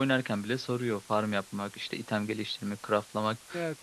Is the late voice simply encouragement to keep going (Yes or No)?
Yes